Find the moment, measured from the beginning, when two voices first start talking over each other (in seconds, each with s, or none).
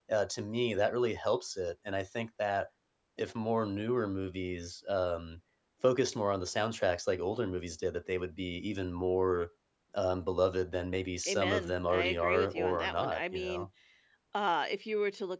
11.2 s